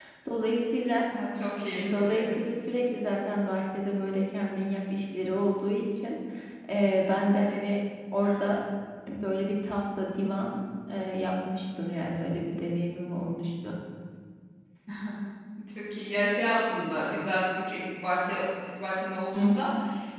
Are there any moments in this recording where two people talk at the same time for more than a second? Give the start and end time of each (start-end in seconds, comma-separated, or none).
none